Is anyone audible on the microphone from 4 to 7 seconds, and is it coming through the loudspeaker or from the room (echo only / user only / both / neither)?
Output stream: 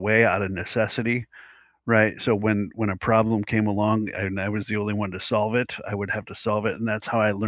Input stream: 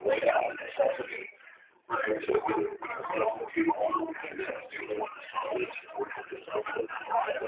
echo only